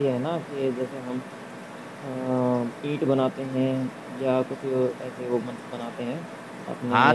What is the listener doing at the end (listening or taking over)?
taking over